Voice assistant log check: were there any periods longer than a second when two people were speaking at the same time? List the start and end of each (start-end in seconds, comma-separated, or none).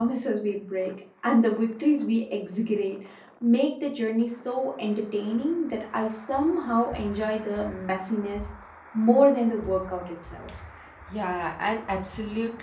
none